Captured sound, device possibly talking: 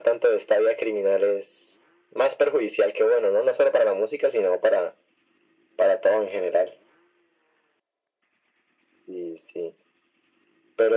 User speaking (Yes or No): No